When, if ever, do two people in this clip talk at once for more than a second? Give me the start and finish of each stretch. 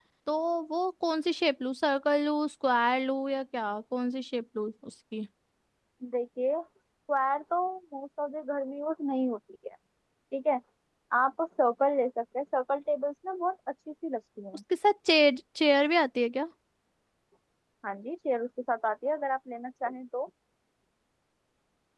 none

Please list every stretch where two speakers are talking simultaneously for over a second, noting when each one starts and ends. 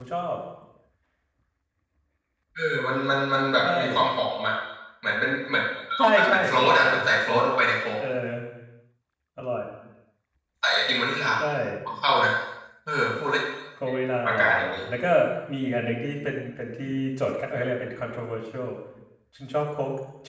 6.2-7.5

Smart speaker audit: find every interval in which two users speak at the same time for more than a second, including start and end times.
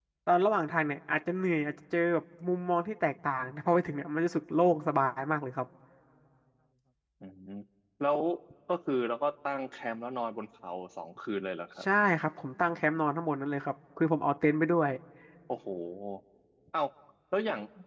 none

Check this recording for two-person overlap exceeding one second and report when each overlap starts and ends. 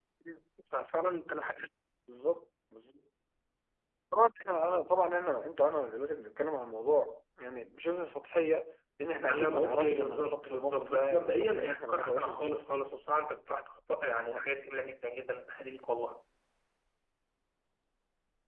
9.3-12.6

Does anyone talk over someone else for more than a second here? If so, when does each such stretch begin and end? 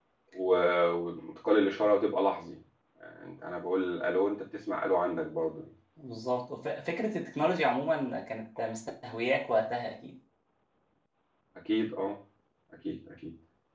none

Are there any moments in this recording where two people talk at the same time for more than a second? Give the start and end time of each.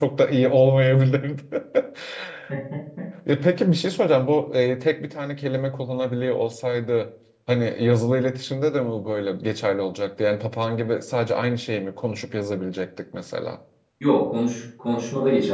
none

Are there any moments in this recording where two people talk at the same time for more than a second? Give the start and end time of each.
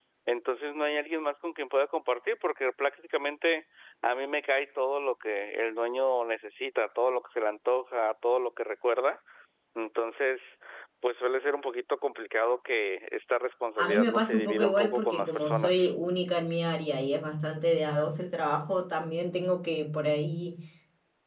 13.8-15.9

